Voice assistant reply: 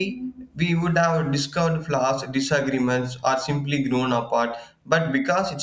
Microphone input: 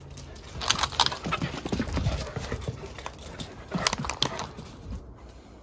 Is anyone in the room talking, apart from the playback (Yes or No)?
No